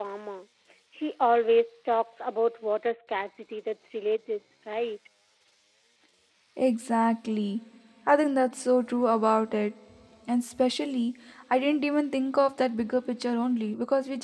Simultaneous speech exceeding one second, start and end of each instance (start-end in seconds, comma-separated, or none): none